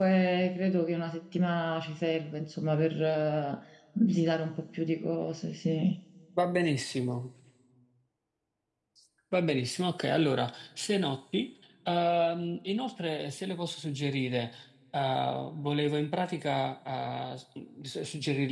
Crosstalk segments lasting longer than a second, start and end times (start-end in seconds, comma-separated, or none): none